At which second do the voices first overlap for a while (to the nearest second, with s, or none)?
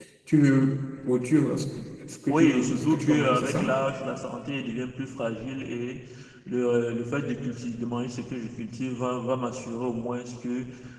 2 s